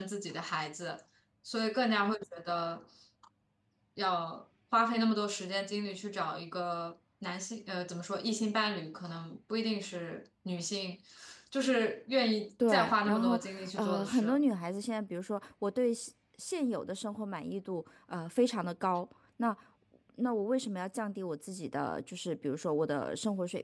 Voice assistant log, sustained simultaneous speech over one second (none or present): present